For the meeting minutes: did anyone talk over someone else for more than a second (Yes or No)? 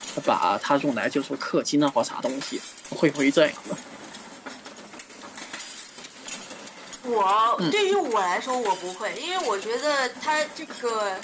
No